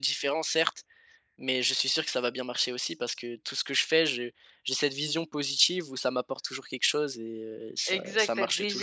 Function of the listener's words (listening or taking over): taking over